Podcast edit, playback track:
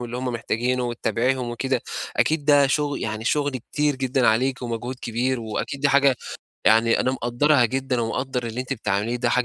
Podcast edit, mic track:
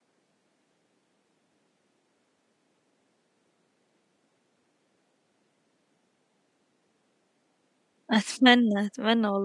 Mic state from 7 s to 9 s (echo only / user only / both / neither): user only